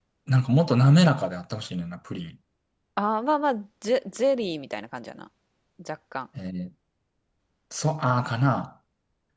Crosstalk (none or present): none